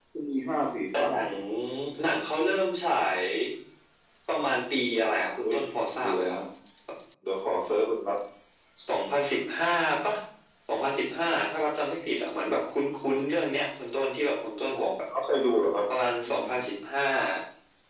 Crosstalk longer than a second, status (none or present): none